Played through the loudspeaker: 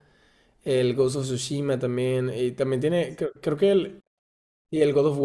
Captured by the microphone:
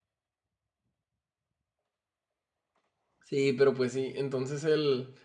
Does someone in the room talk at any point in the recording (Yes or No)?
Yes